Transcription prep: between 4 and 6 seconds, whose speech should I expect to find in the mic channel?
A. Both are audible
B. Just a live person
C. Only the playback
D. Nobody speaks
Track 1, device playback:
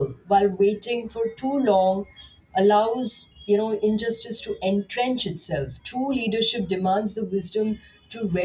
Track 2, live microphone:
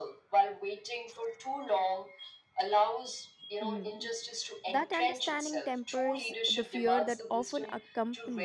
A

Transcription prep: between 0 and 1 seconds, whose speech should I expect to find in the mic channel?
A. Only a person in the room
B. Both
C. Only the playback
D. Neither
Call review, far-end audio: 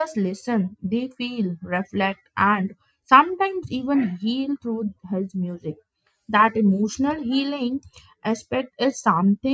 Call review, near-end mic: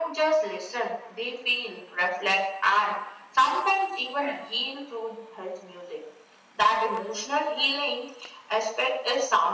C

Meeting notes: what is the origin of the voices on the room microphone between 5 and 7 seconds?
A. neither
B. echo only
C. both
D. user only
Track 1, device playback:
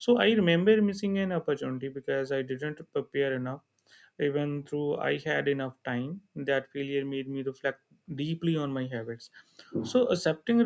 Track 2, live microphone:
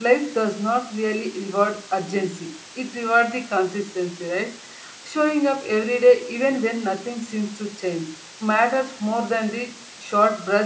D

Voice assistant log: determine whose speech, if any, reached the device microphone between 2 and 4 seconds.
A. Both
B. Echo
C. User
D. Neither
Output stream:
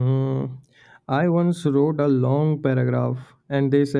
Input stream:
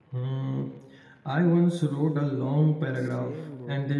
A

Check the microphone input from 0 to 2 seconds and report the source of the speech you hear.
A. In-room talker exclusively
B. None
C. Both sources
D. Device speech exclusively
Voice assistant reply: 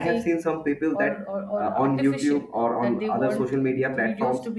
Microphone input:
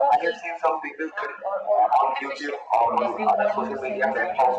D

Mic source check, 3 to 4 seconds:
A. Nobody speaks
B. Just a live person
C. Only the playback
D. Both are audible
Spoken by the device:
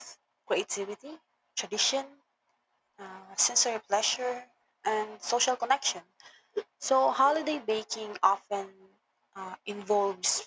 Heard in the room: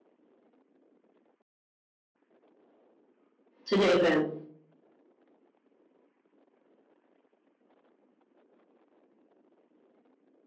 B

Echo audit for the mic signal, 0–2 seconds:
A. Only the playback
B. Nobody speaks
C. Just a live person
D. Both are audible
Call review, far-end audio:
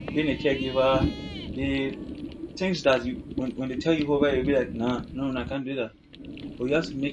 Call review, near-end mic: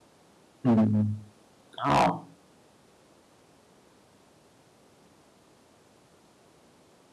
C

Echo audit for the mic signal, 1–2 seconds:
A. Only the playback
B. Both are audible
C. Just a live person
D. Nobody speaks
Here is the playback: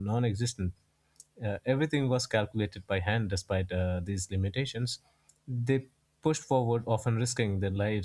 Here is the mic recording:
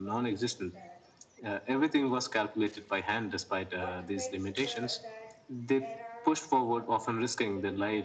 B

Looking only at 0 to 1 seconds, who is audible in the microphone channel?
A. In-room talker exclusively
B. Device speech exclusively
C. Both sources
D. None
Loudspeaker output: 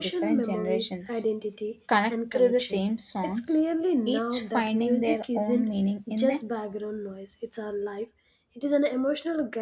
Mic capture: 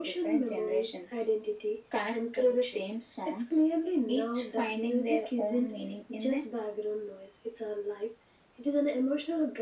B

